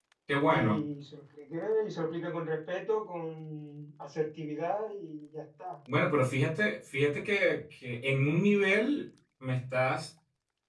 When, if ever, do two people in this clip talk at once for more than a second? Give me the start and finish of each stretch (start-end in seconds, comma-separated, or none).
none